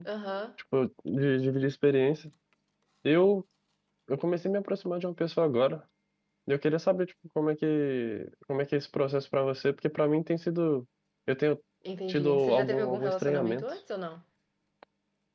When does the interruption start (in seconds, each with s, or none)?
12.1 s